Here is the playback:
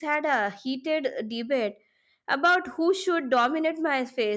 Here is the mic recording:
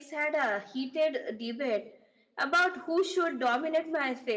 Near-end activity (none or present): none